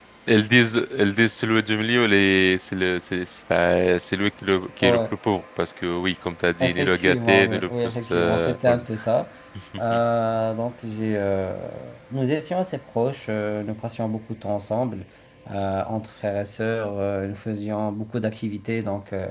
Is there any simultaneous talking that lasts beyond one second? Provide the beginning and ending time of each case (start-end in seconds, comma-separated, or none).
6.6-8.6